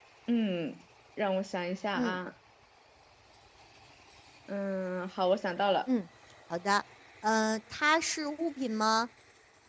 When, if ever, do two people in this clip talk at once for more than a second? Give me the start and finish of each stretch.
none

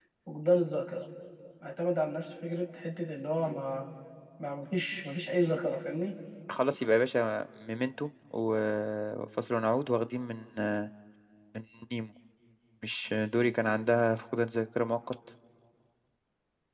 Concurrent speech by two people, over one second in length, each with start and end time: none

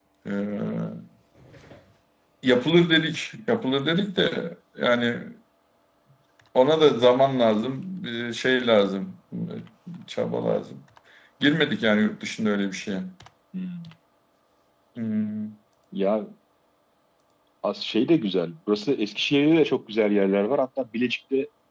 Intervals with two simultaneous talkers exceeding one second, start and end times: none

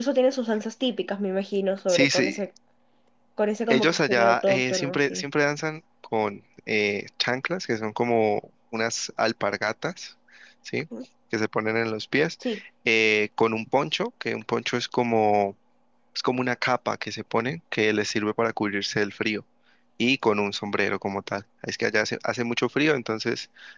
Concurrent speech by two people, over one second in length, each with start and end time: 3.7-5.2

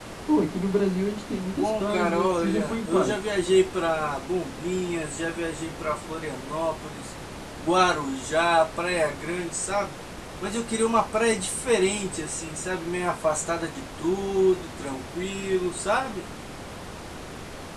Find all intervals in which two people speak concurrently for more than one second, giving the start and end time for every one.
1.5-3.3

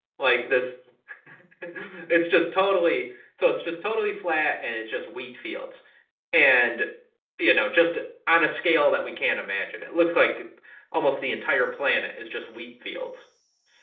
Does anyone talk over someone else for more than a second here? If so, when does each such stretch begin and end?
none

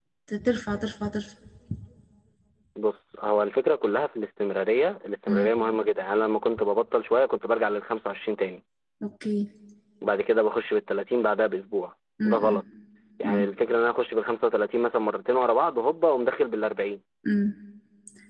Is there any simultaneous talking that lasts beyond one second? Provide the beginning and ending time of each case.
none

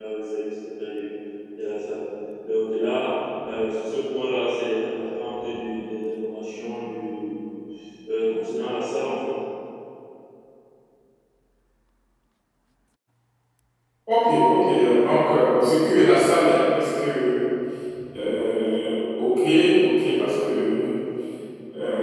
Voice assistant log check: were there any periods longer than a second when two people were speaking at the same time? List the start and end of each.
none

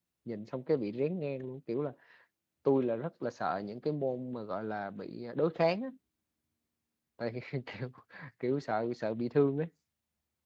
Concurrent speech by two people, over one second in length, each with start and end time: none

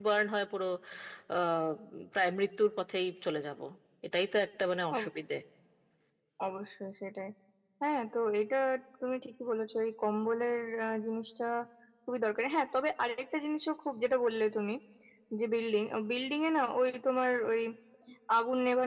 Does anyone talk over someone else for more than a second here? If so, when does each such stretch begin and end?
none

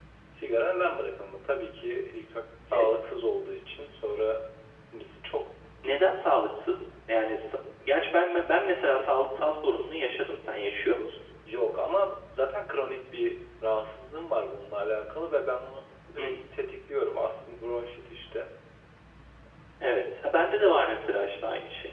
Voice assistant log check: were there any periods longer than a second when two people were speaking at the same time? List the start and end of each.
none

